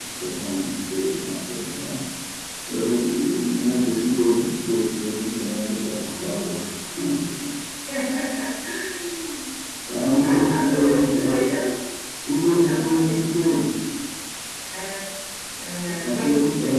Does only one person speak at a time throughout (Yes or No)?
No